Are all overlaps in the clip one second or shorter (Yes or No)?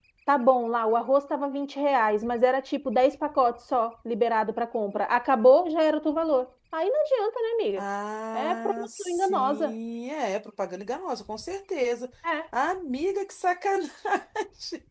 No